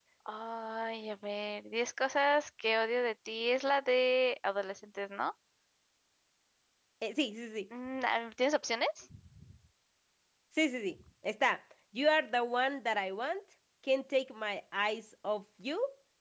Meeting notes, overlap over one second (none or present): none